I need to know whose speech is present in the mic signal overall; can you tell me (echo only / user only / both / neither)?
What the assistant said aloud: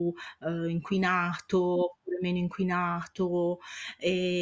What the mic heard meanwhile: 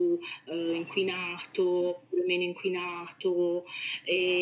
echo only